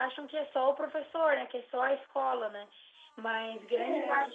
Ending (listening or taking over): listening